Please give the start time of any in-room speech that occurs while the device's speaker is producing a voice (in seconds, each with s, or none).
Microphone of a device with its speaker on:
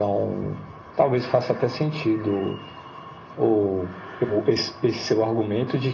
none